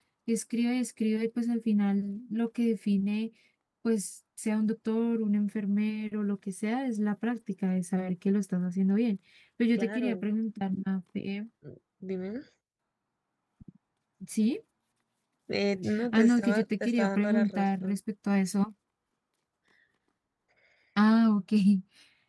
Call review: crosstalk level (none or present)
present